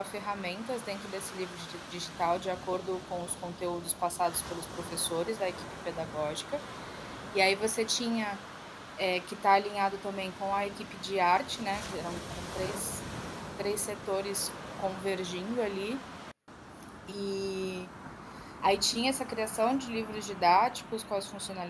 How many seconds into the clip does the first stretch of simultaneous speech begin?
none

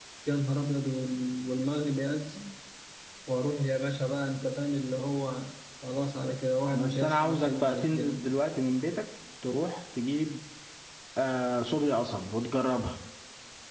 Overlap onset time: 6.6 s

